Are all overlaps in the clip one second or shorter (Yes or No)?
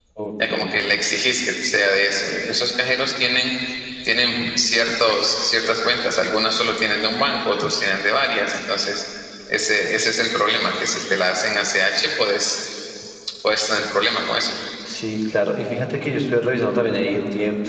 Yes